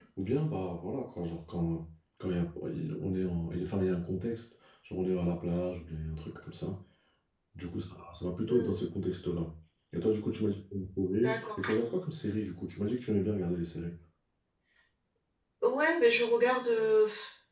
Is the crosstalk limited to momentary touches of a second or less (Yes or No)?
Yes